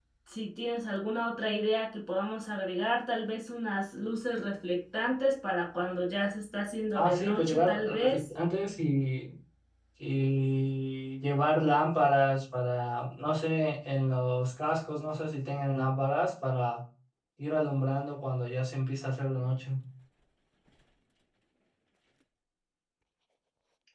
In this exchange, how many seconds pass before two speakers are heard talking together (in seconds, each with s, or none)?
6.9 s